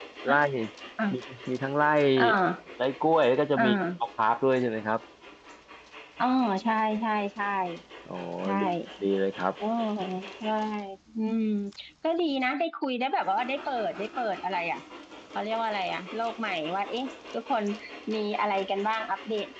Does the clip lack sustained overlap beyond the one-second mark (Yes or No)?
Yes